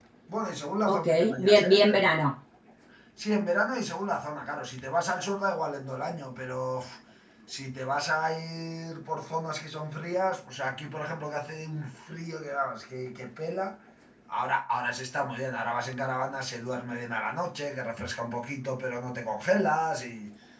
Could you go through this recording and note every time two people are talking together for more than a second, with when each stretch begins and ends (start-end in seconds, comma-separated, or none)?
0.9-2.1